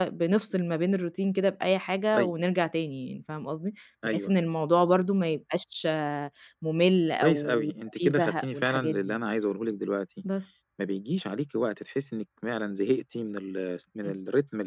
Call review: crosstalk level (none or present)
present